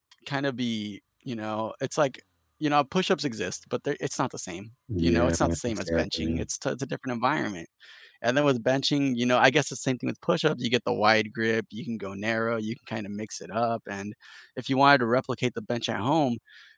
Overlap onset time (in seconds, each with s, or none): 4.9 s